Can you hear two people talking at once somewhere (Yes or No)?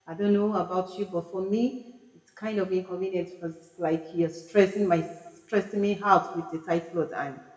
No